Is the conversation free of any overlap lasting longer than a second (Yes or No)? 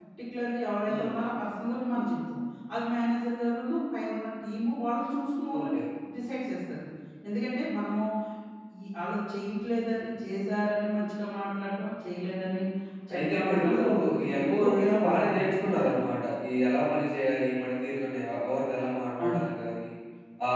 No